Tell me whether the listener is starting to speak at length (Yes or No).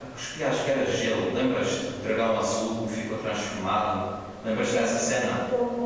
Yes